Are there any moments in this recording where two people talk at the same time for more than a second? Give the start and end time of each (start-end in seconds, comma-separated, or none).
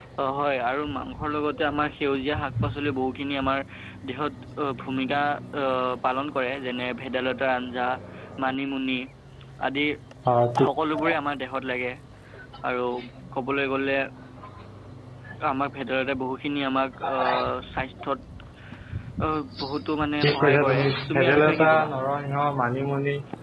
20.2-21.9